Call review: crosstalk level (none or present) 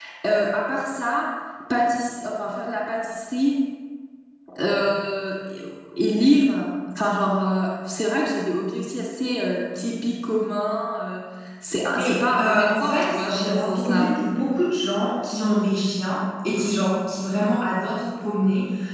present